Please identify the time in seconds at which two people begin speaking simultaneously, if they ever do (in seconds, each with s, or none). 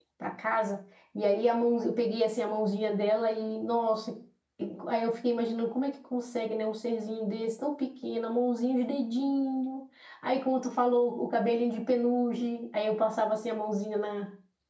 none